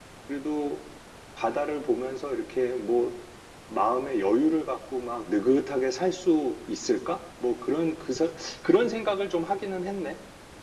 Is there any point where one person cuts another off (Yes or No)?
No